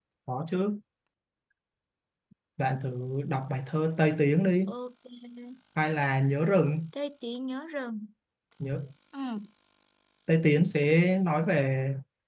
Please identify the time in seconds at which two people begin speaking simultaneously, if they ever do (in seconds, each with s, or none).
none